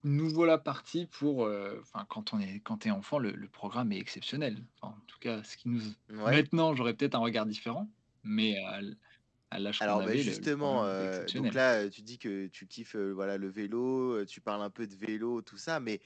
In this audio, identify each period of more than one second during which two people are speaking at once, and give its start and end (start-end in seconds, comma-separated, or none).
9.9-11.6